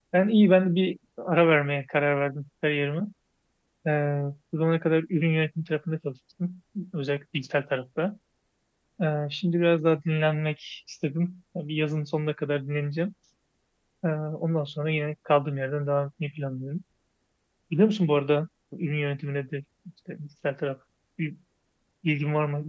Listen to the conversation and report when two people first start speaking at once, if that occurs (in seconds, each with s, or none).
none